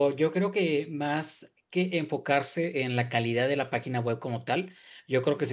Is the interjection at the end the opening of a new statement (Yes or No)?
No